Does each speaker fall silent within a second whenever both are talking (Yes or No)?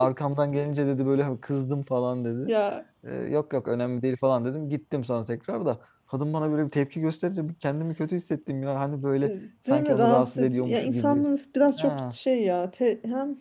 No